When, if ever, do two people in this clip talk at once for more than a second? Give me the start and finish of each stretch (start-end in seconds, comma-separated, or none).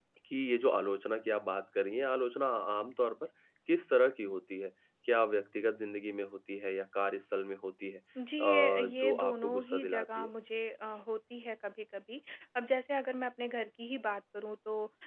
8.4-10.3